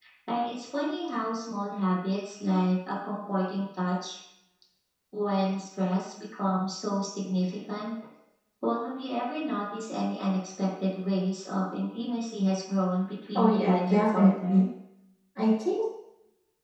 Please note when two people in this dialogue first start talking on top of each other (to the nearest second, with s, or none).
13 s